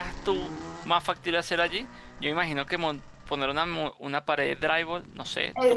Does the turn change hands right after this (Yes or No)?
Yes